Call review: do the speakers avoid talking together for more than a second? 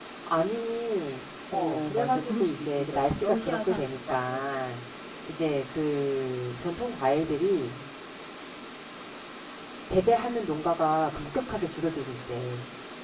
No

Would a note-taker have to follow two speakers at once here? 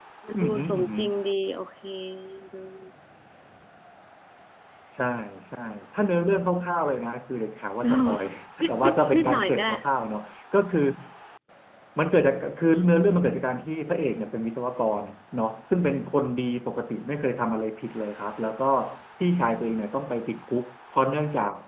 Yes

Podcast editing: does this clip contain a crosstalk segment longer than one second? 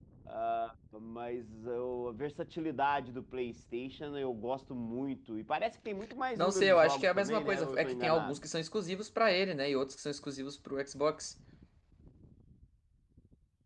Yes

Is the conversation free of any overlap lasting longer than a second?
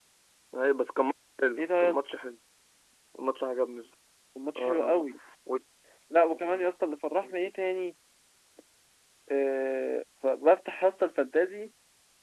Yes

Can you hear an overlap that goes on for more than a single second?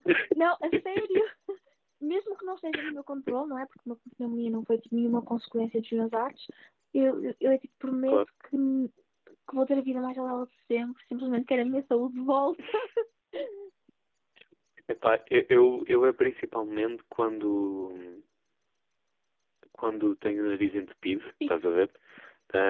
No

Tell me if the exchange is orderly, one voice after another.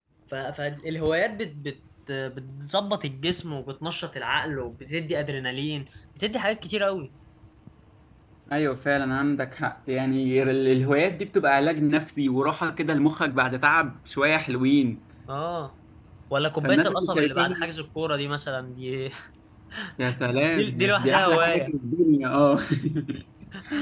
No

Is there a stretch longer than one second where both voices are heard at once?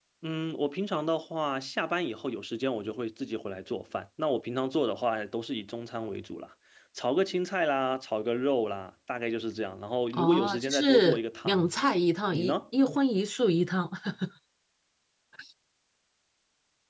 Yes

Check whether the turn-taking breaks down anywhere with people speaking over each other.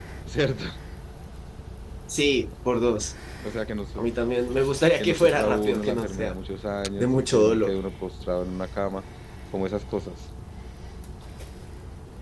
Yes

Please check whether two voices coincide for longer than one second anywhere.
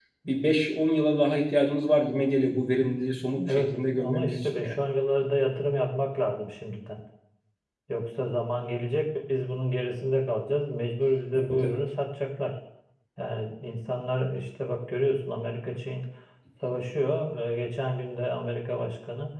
Yes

